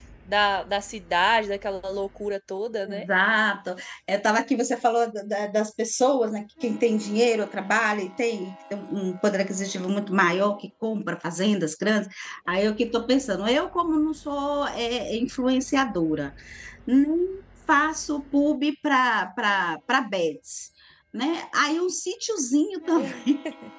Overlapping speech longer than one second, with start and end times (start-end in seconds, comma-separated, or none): none